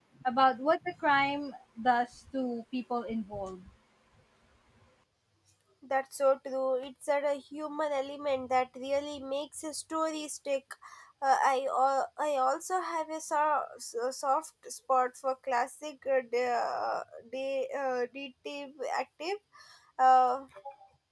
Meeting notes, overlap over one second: none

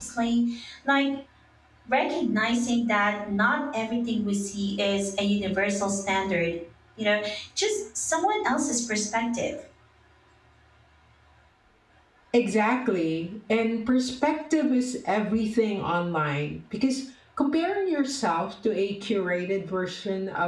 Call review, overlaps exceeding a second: none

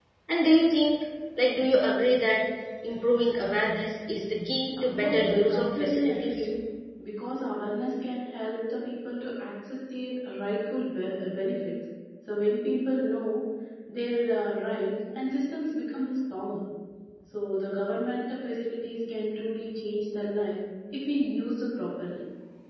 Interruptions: present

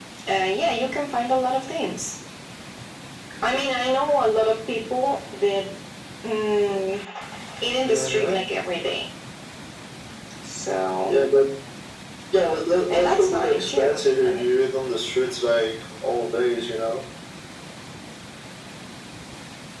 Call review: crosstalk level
present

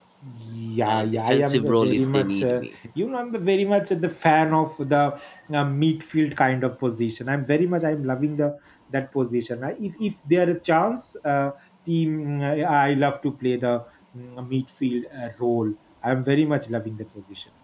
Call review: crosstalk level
present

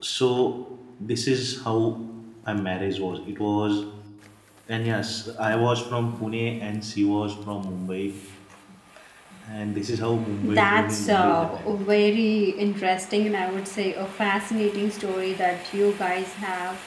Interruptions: present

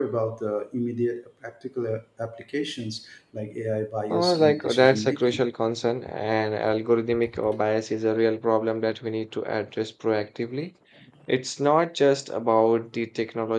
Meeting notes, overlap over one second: present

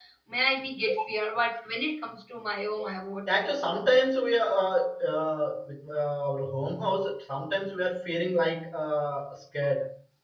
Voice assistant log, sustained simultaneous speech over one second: none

